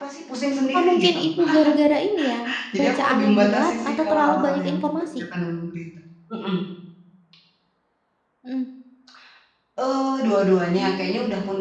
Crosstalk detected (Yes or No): Yes